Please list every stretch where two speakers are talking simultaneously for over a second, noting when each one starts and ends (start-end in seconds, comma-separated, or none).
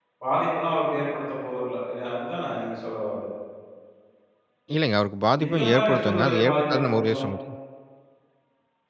5.5-7.2